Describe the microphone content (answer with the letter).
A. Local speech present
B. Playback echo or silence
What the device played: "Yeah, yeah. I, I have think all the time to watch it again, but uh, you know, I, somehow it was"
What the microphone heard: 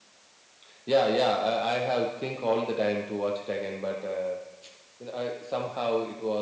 B